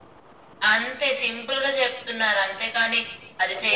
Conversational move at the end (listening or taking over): listening